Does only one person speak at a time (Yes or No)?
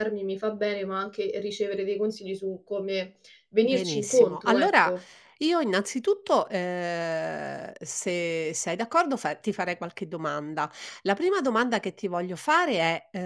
No